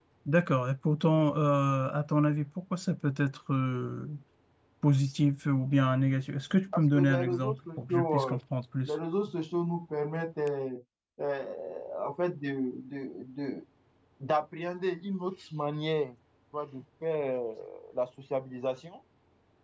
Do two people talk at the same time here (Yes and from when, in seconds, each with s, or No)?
Yes, from 6.7 s